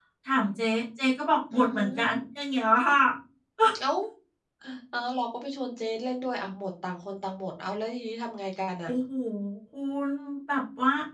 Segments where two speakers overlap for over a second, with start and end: none

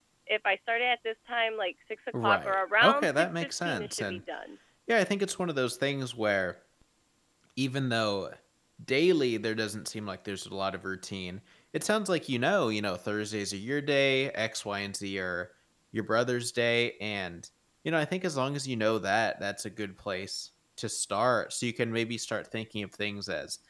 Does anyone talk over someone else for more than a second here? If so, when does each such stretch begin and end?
2.2-4.2

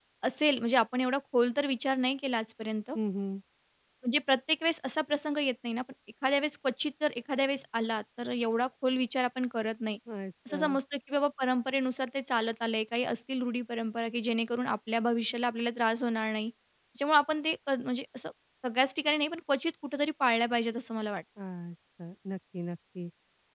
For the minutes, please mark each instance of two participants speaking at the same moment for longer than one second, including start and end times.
none

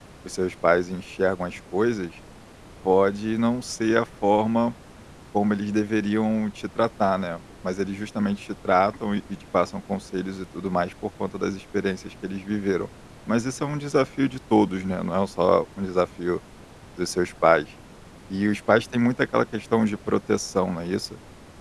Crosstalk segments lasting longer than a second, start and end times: none

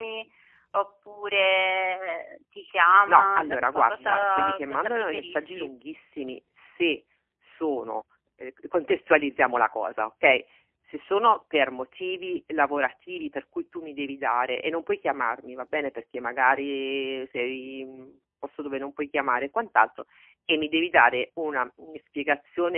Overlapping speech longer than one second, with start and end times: 3.1-5.7

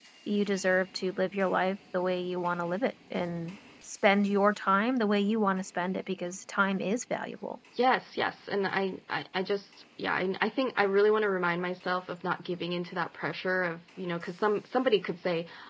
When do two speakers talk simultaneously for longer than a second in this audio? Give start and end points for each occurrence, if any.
none

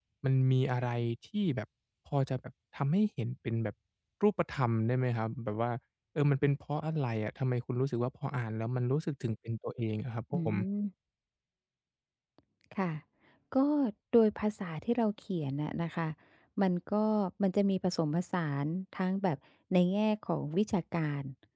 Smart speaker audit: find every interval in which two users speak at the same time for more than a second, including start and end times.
none

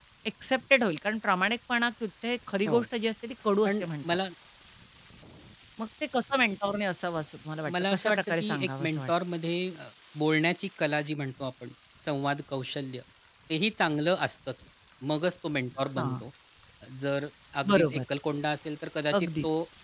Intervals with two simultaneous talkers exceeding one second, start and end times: 7.7-9.1

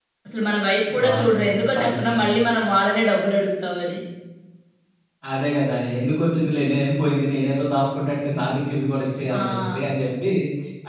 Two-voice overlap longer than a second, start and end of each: 1.0-2.2

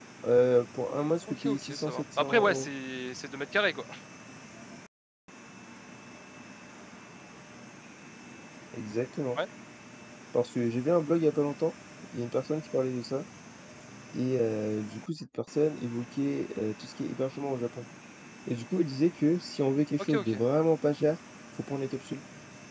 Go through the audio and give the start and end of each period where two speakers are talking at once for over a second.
1.2-2.7

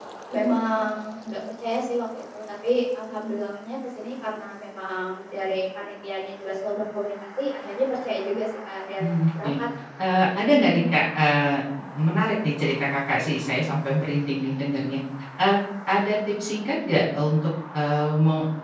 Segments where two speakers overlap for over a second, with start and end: none

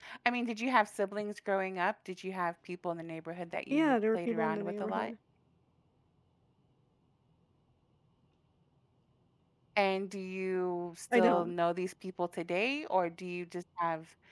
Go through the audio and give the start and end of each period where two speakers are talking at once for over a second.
3.7-5.1

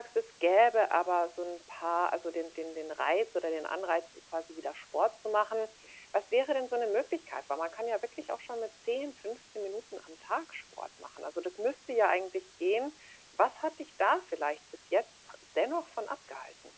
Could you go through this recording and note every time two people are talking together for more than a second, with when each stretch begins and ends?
none

